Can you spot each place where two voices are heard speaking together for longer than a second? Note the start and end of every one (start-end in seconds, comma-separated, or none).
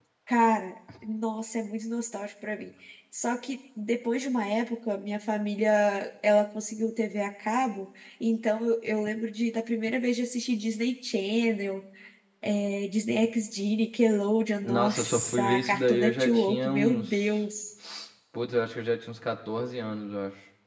14.6-17.4